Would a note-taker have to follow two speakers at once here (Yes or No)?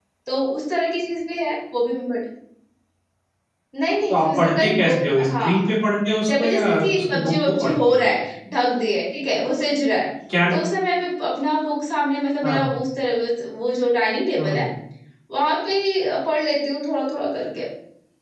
Yes